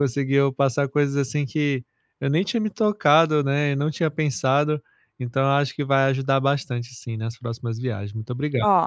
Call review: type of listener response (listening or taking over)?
taking over